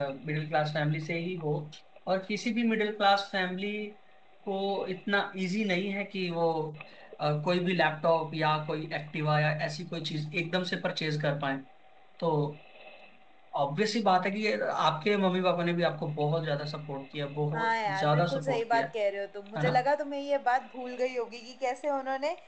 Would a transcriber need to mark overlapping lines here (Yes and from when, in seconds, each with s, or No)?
Yes, from 17.5 s